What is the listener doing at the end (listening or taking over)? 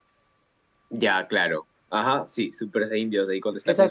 taking over